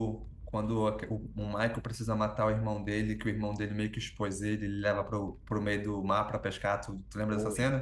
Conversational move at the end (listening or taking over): taking over